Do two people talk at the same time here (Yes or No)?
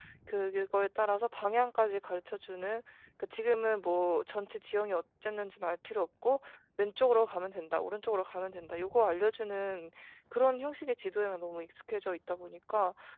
No